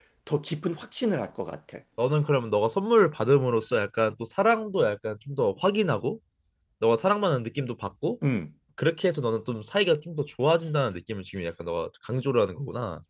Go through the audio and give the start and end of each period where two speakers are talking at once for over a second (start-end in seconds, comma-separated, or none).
none